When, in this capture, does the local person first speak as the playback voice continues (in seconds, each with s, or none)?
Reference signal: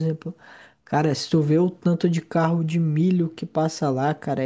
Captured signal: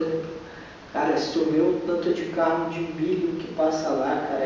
none